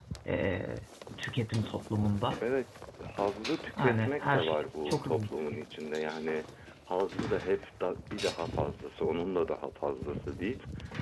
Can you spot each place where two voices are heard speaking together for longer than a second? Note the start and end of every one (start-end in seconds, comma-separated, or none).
3.8-5.3